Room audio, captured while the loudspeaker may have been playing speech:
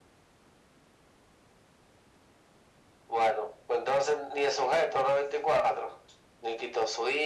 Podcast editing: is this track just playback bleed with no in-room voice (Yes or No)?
Yes